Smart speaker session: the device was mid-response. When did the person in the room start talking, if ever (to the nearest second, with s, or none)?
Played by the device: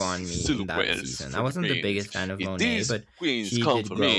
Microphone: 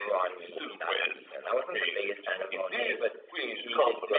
none